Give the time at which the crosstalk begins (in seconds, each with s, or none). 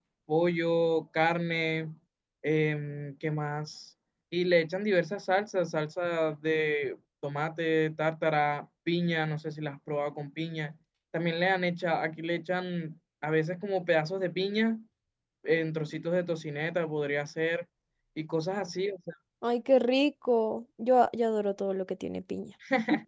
none